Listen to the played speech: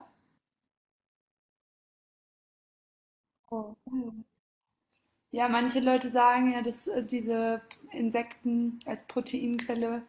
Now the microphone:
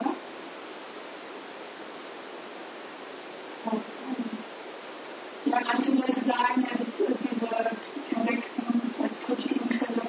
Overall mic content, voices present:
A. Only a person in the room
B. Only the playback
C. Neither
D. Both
B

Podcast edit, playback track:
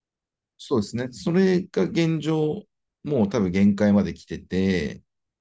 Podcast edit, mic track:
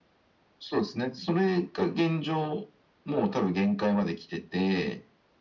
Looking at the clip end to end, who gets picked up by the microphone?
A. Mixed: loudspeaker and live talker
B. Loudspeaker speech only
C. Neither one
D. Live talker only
B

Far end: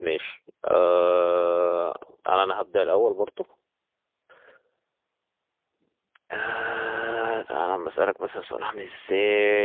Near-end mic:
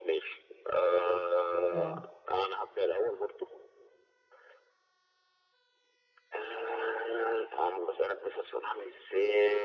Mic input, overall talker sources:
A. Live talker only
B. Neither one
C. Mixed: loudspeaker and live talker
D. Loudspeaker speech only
C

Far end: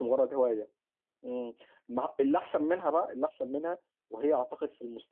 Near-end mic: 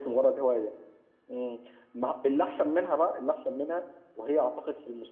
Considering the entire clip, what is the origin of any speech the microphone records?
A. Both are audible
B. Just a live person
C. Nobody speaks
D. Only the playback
D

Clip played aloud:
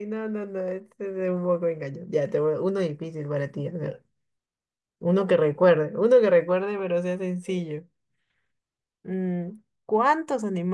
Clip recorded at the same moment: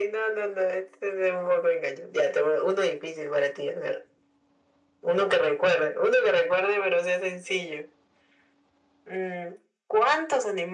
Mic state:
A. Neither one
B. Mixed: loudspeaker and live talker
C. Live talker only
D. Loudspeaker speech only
D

